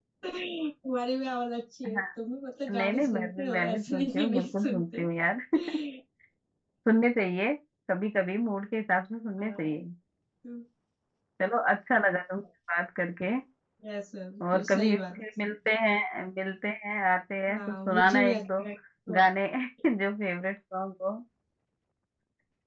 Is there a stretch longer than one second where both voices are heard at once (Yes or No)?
Yes